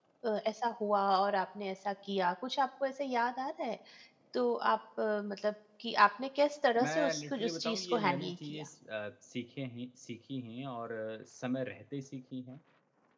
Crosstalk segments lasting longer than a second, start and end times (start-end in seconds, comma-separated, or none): 6.8-8.6